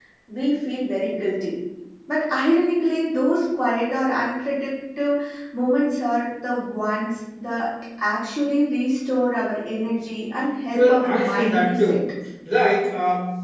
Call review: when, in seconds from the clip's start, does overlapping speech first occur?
10.7 s

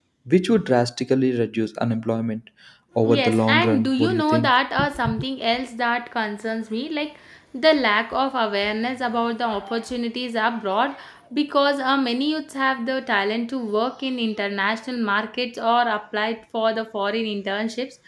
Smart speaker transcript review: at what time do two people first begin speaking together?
3.1 s

